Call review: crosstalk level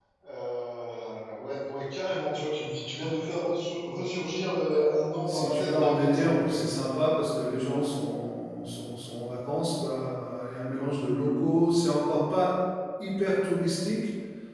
present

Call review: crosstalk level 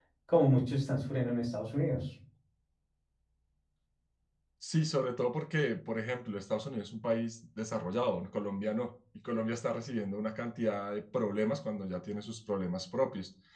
none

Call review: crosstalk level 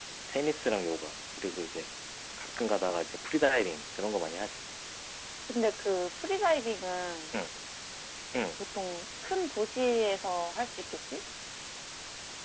none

